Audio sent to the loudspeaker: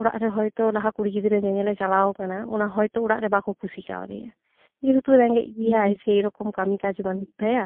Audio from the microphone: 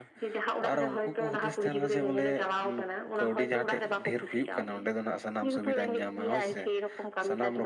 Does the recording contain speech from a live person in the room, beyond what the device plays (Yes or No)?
Yes